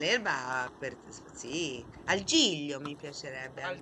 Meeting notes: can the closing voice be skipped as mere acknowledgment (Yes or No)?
No